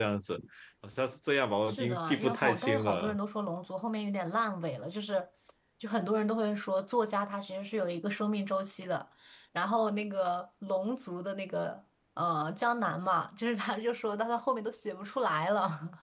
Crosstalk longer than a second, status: present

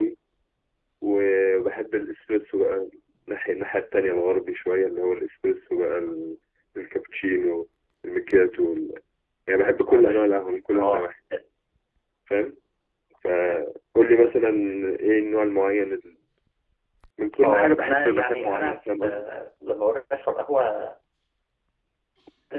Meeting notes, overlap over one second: present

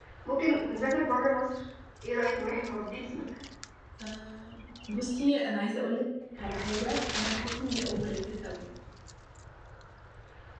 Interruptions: none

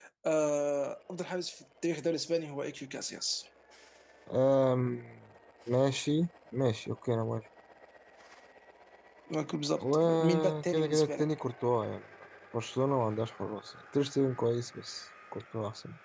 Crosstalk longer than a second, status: present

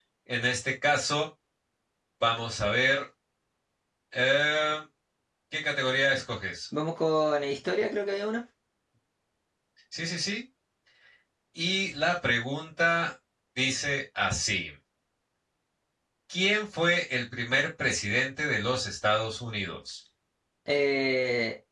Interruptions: none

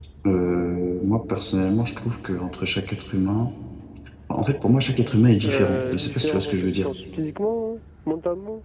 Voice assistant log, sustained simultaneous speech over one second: present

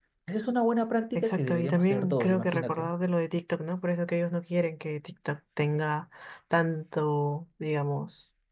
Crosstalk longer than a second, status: present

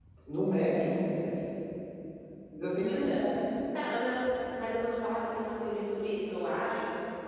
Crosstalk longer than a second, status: none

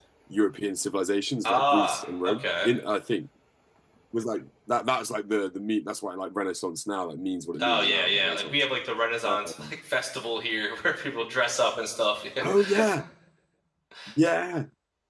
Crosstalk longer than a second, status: present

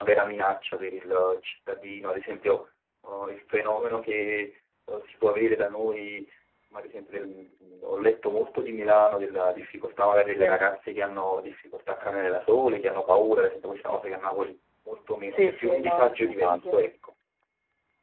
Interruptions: present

